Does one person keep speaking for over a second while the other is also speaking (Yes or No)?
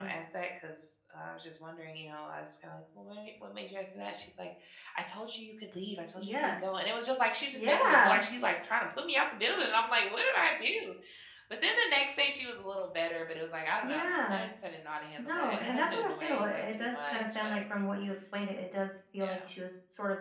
Yes